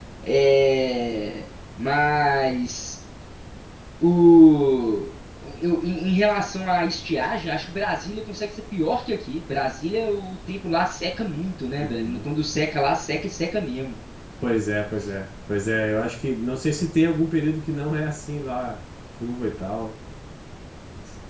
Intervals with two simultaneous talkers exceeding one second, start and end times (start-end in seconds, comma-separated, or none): none